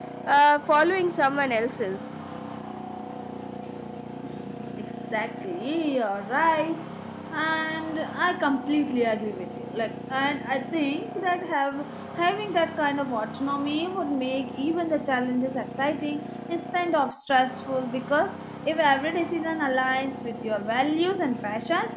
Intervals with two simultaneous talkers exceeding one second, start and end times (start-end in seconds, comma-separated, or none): none